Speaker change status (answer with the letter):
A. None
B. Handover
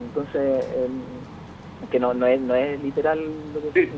B